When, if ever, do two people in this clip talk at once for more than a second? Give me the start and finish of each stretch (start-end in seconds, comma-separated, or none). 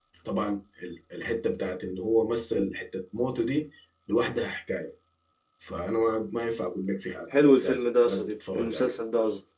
7.3-8.9